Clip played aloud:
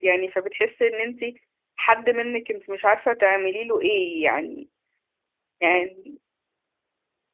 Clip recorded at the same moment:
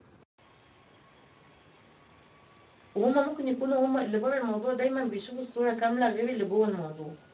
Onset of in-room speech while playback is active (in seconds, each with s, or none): 2.9 s